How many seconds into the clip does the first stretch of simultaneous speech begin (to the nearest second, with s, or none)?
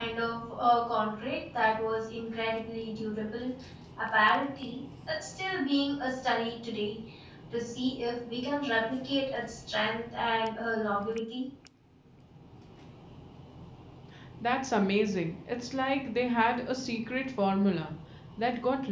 none